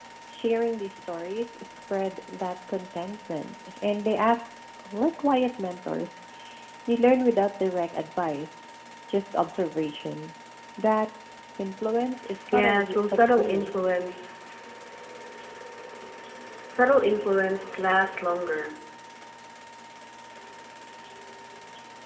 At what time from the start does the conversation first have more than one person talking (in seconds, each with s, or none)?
12.5 s